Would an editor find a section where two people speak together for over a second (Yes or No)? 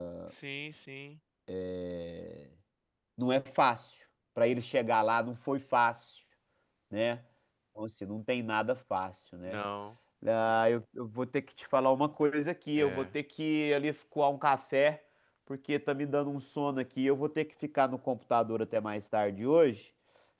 No